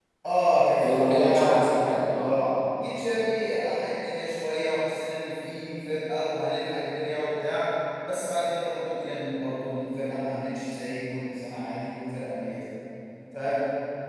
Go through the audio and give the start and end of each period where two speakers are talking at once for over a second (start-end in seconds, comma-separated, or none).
0.8-2.3